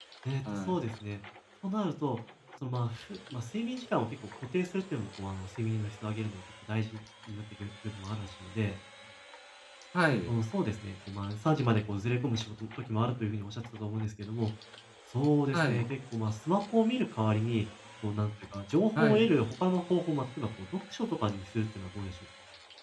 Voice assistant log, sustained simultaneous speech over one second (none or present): none